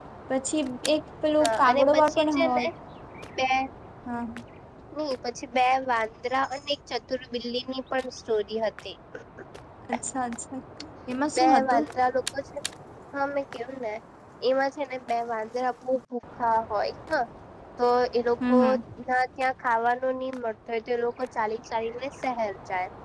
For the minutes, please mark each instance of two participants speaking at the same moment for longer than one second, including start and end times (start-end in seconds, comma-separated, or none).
1.4-2.7